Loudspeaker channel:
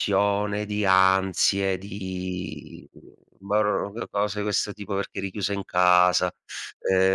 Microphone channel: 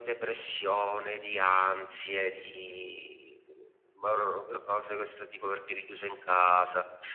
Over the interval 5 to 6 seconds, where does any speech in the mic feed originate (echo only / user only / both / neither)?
echo only